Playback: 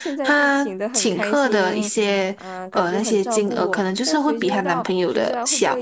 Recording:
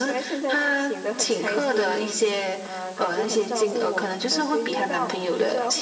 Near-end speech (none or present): none